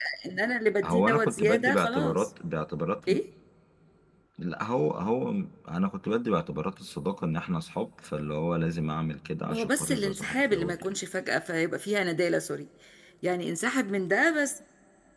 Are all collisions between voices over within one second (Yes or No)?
No